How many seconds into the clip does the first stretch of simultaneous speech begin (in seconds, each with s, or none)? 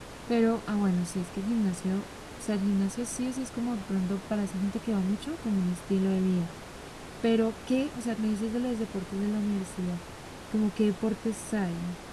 none